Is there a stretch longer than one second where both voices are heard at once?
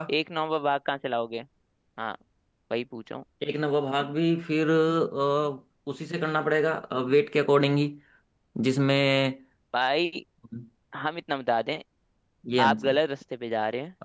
No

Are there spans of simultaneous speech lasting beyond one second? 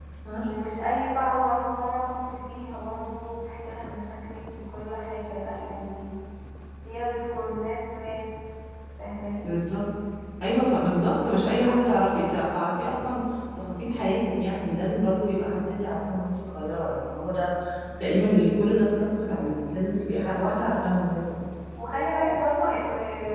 No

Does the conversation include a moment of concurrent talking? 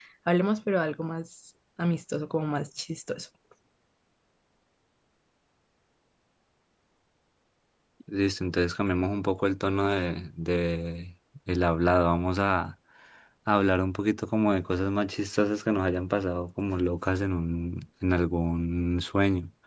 No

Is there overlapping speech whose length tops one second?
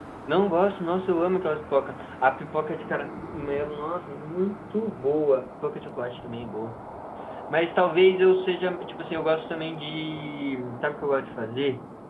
No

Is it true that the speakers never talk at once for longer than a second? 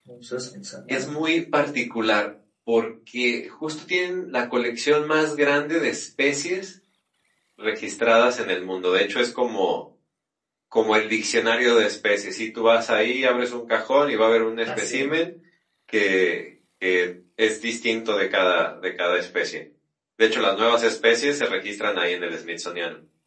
Yes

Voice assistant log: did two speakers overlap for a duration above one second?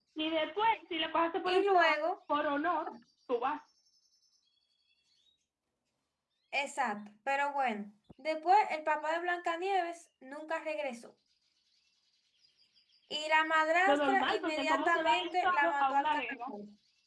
Yes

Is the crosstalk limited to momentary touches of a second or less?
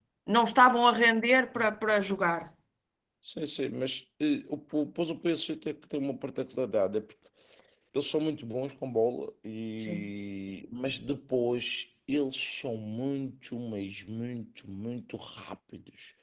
Yes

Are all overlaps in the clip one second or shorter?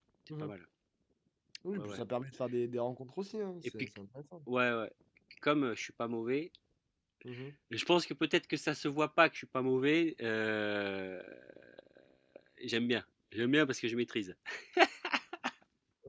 Yes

